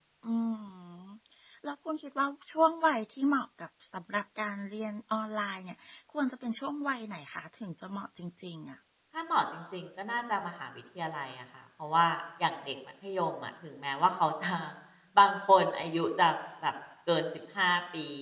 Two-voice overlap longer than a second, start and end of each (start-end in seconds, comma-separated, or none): none